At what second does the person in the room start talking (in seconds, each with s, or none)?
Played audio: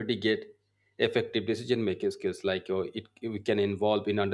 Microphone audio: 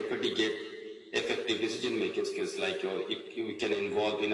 none